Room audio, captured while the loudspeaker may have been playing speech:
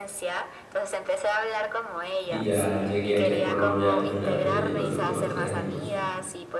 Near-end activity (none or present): present